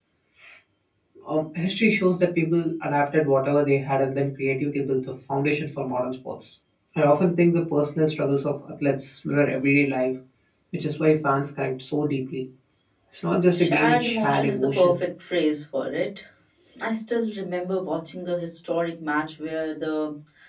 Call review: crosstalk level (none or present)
present